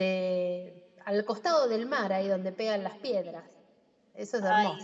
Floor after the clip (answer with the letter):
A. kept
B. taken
B